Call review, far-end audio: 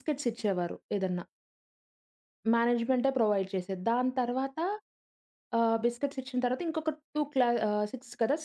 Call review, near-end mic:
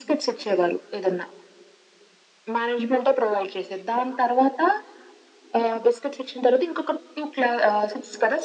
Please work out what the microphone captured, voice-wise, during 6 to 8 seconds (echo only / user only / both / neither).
echo only